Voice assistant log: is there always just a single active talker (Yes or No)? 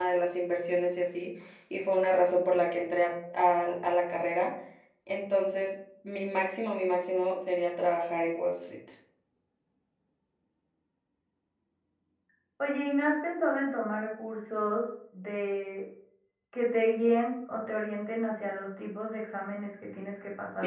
Yes